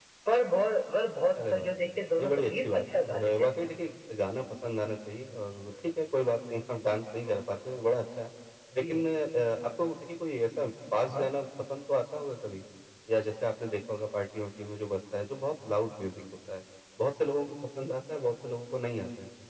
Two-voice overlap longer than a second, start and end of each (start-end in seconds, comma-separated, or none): 2.2-3.5